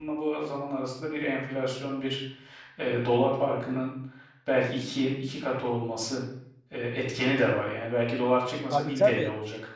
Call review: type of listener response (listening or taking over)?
taking over